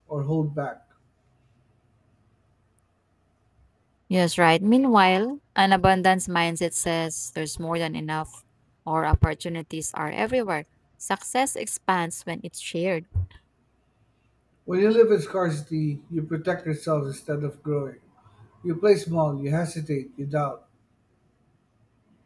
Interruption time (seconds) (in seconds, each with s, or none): none